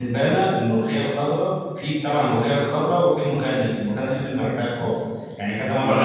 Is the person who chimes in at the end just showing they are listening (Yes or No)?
Yes